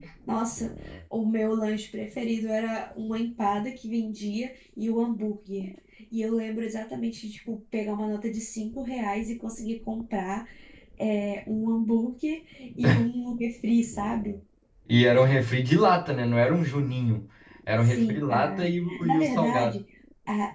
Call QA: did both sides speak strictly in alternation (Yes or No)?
No